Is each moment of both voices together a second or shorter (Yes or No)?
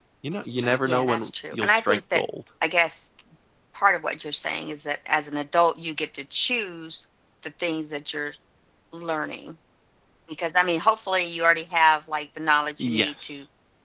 No